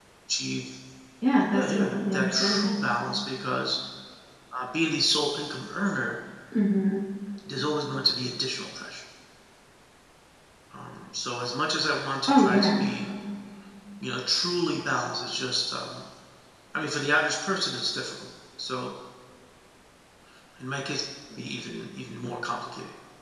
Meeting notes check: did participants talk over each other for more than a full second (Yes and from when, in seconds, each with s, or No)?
Yes, from 1.5 s